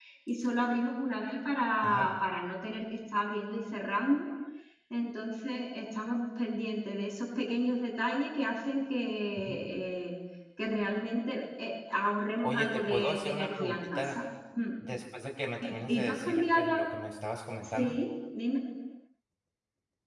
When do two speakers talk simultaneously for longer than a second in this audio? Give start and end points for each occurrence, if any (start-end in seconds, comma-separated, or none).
12.4-14.2, 15.6-16.8